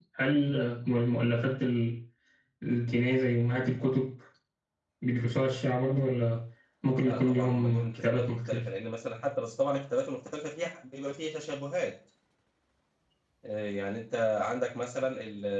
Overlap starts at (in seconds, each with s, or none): 7.0 s